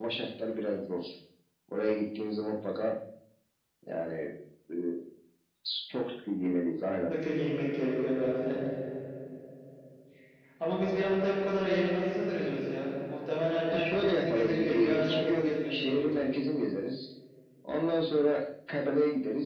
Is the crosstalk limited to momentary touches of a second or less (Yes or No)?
No